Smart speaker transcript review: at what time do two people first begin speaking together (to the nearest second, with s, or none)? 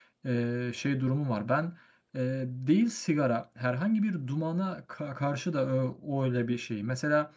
none